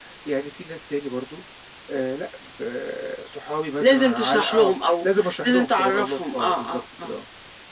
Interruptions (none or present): present